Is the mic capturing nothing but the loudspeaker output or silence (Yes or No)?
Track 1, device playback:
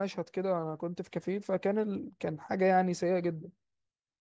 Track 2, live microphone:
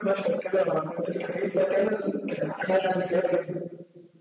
Yes